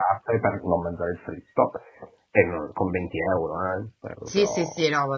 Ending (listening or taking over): taking over